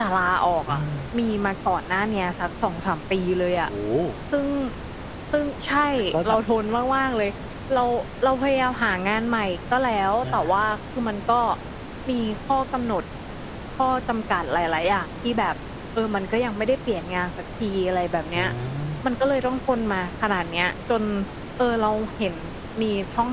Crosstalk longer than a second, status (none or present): none